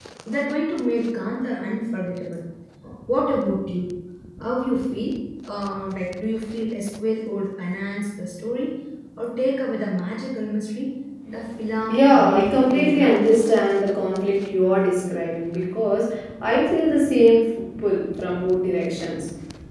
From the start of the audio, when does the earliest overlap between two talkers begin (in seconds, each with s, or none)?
11.8 s